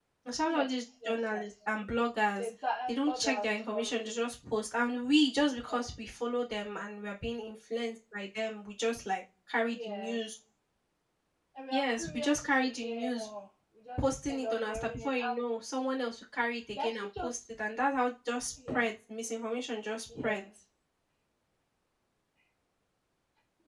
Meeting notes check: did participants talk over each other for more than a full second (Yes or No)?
Yes